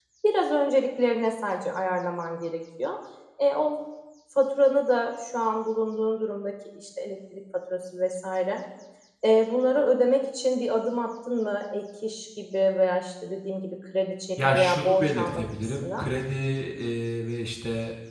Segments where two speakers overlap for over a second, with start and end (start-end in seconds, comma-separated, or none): 14.4-16.1